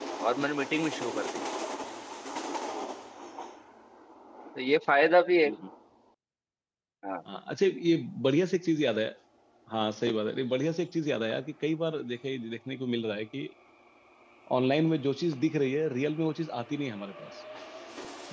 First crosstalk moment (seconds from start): none

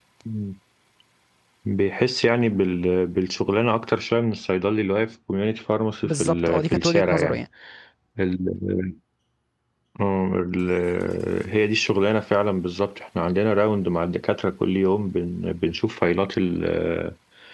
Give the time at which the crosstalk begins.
6.0 s

